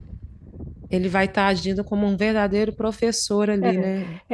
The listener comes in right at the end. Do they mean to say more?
Yes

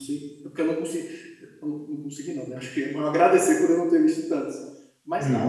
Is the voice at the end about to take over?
Yes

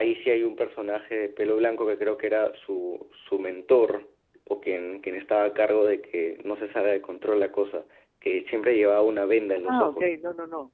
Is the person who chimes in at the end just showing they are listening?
No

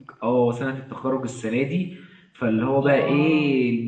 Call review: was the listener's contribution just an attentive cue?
Yes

